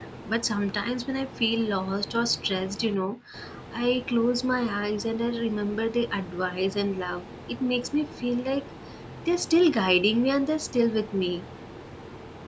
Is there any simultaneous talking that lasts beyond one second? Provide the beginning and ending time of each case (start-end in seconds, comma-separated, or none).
none